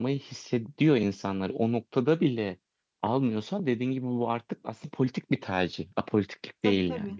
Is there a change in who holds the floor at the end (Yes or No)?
Yes